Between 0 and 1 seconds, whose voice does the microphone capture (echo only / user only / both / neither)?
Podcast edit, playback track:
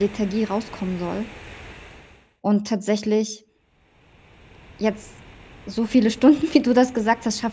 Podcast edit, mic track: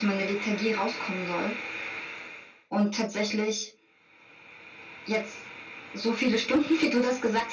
echo only